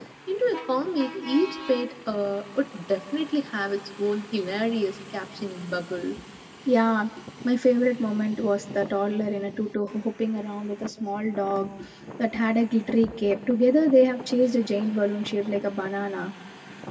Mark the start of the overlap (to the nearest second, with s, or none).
none